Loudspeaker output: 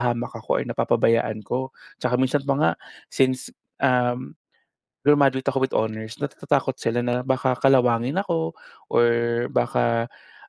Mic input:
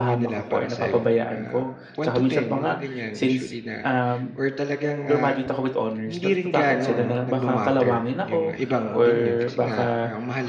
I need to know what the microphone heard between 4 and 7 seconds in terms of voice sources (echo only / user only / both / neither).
both